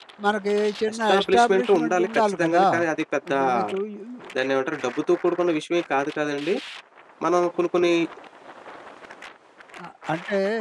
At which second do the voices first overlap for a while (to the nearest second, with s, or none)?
1 s